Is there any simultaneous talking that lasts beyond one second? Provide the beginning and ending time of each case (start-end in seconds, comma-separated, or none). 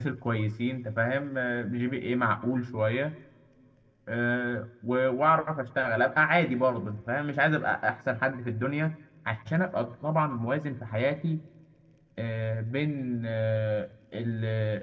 none